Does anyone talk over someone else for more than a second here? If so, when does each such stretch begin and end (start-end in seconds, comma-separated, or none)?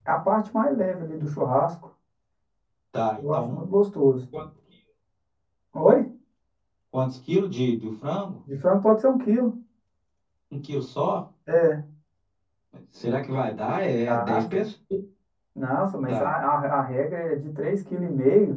none